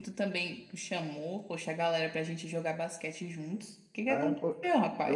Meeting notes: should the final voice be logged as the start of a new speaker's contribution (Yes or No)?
Yes